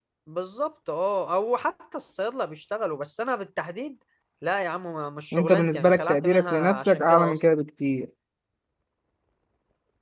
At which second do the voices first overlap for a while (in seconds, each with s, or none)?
5.3 s